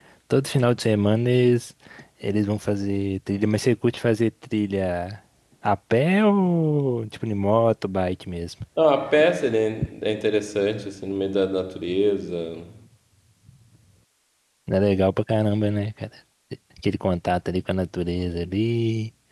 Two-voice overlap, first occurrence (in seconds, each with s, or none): none